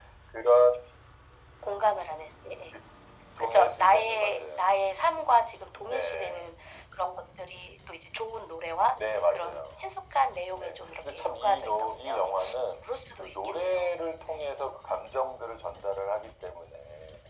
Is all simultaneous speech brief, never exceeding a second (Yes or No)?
No